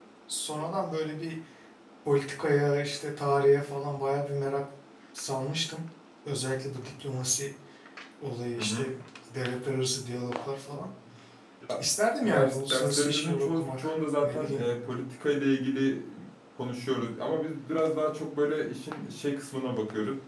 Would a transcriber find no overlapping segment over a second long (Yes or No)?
No